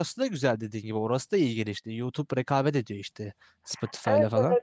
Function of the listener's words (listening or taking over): taking over